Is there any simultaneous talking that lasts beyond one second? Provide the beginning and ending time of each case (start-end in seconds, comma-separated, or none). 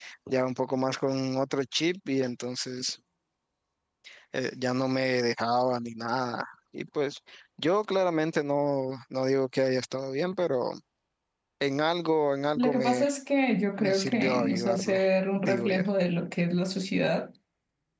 13.8-15.0